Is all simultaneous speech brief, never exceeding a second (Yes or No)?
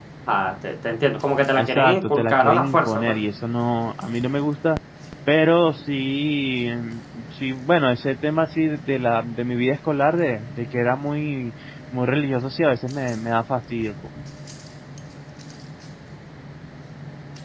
No